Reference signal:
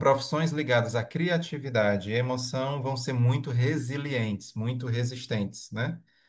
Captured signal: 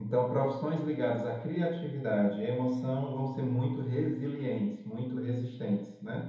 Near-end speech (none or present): none